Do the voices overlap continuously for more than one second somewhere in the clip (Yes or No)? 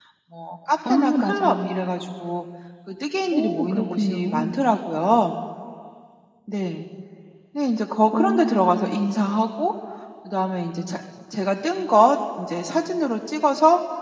Yes